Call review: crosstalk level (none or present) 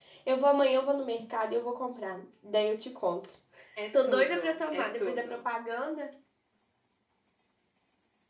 present